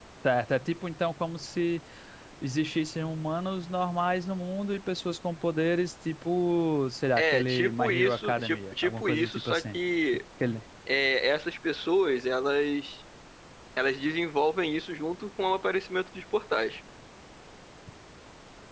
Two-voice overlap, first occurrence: 7.2 s

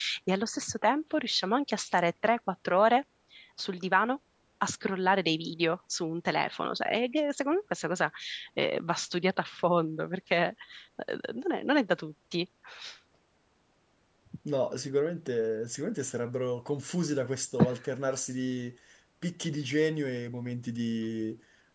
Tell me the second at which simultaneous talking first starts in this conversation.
none

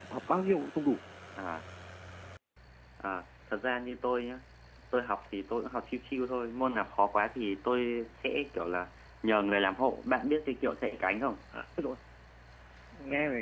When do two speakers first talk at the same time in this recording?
none

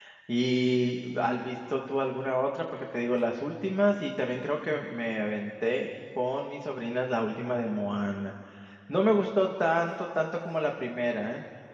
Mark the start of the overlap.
none

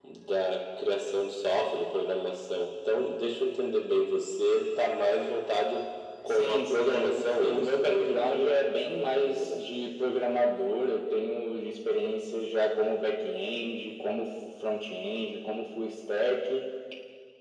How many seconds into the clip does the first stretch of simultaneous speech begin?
6.3 s

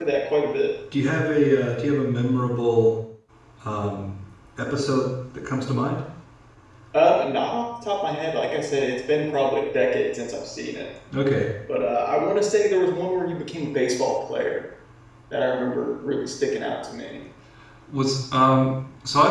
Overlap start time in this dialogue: none

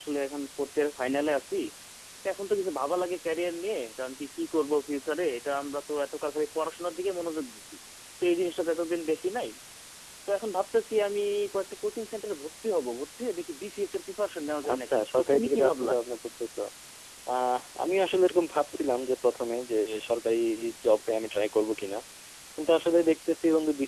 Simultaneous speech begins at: 14.6 s

